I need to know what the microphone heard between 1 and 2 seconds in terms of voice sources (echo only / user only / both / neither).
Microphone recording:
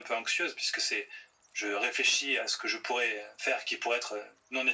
echo only